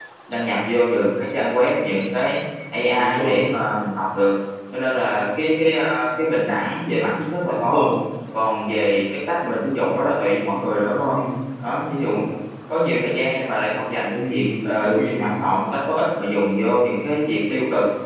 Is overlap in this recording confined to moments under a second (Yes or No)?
No